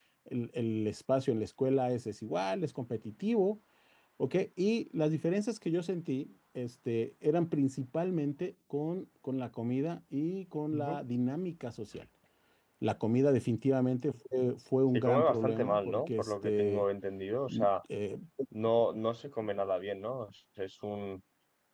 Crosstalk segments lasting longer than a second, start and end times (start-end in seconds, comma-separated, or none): 14.9-16.8